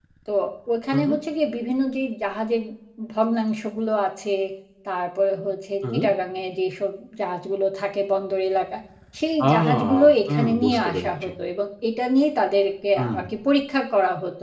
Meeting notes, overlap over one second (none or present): present